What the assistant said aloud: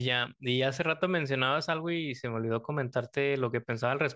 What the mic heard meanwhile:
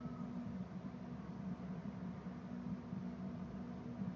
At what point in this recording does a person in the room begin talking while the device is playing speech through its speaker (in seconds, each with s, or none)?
none